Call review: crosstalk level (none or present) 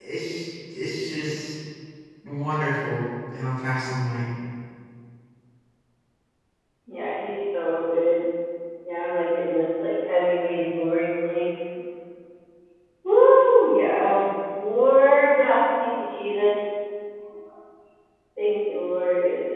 none